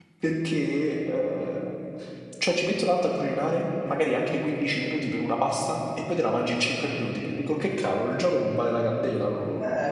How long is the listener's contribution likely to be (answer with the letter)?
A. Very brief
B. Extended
B